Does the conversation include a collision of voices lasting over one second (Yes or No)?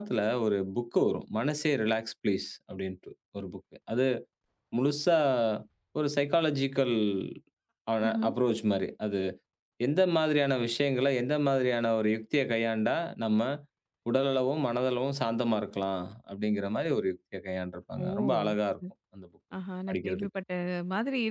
No